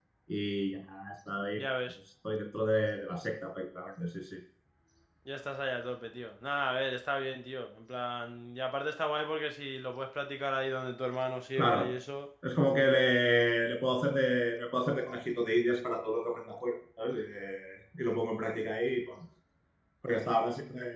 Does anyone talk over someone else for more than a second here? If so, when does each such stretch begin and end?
none

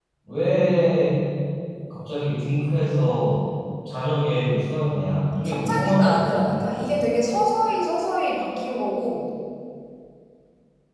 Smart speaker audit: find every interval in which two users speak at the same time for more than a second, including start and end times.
5.4-7.0

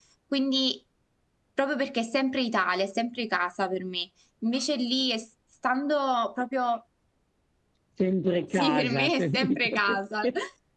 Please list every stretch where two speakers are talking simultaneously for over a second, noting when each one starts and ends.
8.5-10.0

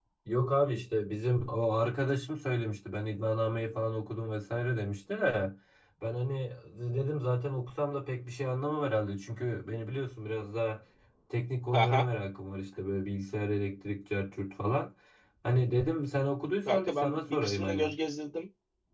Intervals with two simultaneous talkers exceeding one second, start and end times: 16.6-17.9

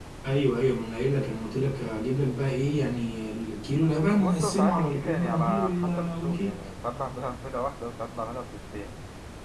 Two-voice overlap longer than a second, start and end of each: 4.1-6.5

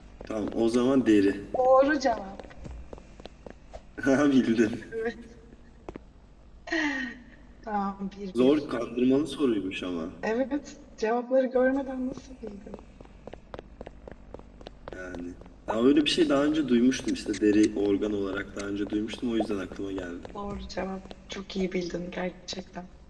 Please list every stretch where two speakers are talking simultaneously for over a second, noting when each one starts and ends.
none

